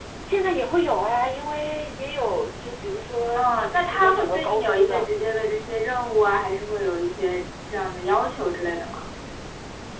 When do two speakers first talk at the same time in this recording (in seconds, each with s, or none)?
3.4 s